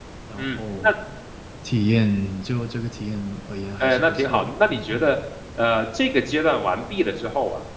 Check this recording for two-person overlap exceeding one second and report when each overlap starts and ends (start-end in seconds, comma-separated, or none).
3.8-5.1